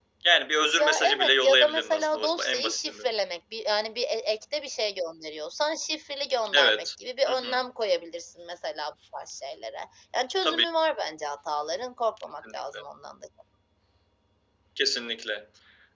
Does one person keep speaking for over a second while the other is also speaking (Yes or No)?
Yes